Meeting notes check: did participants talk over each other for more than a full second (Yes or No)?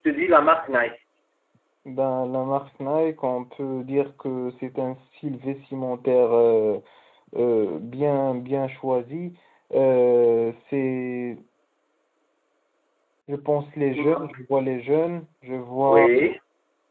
No